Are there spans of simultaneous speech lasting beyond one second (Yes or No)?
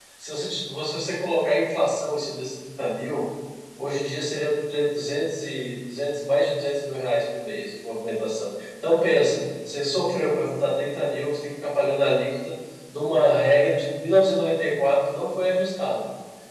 No